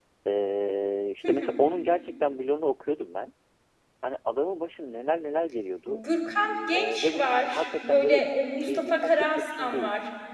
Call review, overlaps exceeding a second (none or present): present